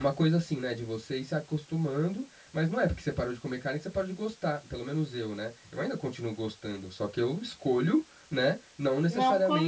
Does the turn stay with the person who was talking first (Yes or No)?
Yes